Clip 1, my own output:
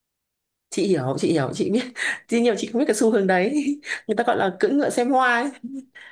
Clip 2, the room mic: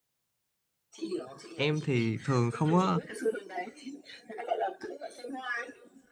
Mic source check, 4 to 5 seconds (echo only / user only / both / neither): echo only